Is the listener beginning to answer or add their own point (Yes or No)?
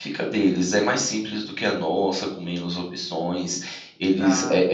No